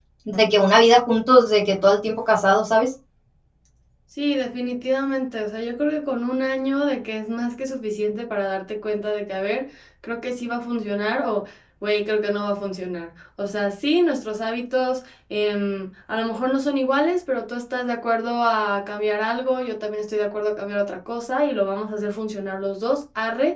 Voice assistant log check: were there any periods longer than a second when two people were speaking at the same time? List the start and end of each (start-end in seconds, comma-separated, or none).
none